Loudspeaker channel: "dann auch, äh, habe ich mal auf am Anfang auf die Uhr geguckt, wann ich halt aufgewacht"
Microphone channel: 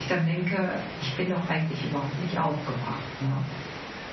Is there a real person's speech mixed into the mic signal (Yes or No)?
Yes